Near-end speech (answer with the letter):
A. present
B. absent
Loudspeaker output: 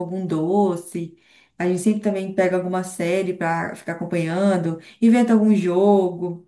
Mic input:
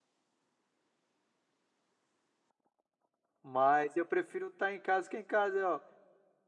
A